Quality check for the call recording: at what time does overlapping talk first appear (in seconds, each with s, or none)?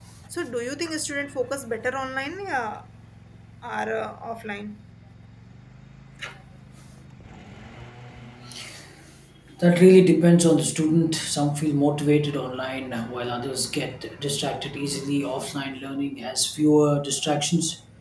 none